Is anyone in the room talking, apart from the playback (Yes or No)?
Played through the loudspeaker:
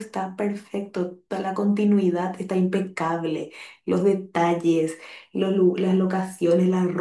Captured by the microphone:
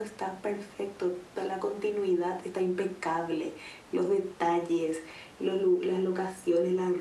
No